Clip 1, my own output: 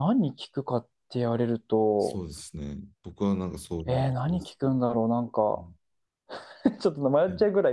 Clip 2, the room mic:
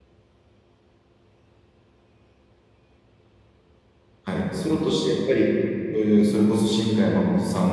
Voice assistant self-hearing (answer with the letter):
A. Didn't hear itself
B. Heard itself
A